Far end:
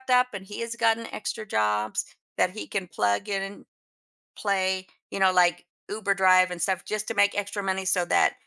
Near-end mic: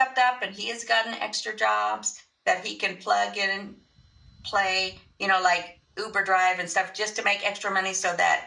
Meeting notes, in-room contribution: none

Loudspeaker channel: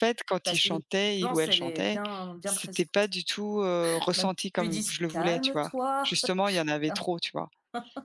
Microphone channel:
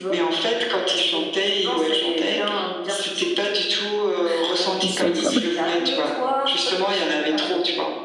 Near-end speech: present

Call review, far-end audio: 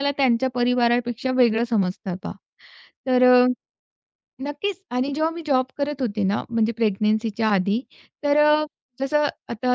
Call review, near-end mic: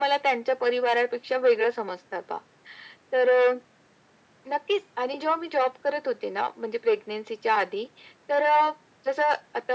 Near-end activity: none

